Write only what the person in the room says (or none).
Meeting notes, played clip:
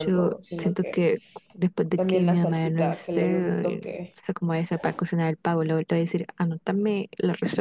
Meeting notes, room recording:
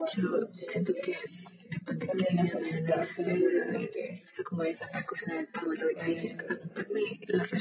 Este,